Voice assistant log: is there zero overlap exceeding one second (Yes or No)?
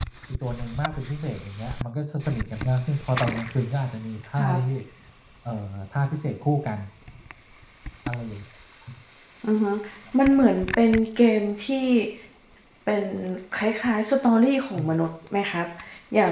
Yes